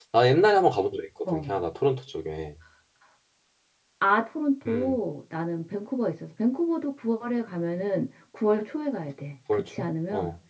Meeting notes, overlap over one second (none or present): none